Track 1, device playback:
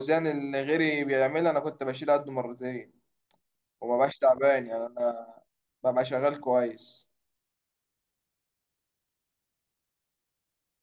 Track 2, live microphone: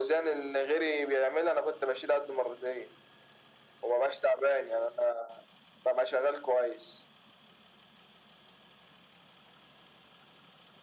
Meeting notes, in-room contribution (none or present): none